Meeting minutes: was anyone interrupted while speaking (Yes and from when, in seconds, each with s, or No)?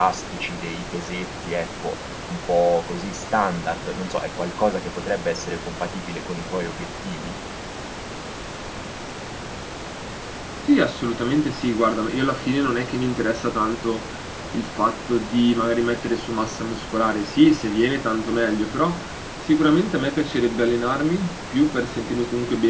No